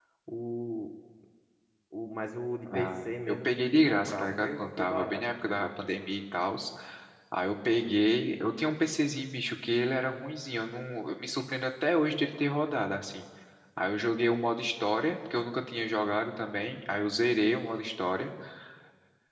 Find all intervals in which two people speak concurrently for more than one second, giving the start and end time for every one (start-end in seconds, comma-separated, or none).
2.7-5.7